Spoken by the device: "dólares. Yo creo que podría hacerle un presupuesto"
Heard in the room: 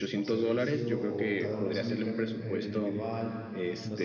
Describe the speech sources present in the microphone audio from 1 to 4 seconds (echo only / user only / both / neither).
both